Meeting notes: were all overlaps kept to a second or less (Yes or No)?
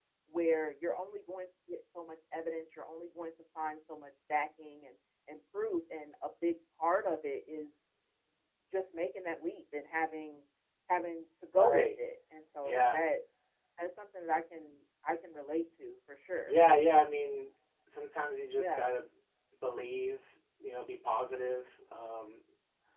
Yes